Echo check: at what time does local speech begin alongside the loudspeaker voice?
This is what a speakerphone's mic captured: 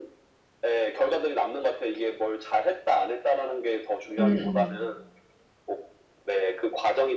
4.2 s

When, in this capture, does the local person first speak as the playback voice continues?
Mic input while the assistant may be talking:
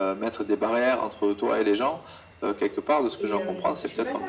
3.2 s

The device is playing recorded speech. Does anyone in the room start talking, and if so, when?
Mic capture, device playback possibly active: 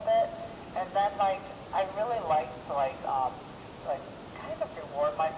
none

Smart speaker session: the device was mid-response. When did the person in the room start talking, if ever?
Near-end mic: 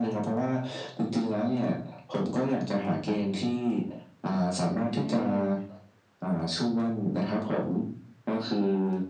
4.8 s

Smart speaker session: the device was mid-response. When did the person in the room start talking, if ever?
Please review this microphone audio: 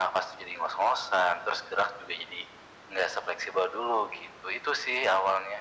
none

